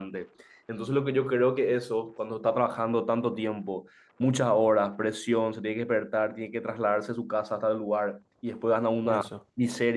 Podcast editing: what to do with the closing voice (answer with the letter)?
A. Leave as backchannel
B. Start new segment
A